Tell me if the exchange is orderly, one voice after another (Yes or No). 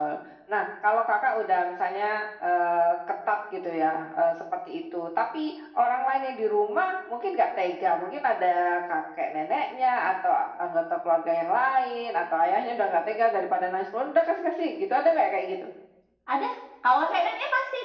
Yes